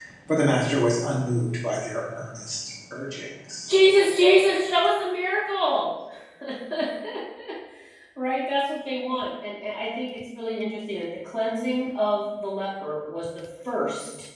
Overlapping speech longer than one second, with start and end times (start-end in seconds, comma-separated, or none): none